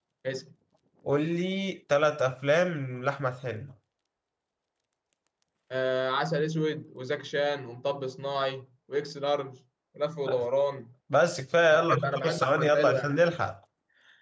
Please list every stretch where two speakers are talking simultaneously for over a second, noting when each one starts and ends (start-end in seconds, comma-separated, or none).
11.7-13.2